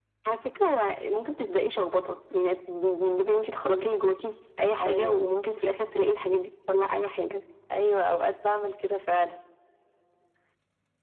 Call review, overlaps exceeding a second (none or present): none